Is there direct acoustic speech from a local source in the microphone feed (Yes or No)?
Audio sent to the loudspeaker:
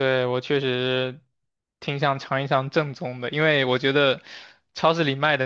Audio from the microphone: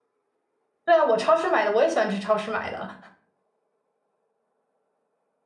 Yes